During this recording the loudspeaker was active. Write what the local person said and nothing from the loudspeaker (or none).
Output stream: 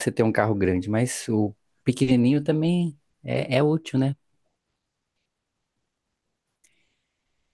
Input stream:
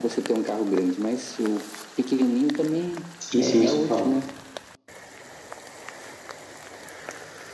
Sim, sim, você falou.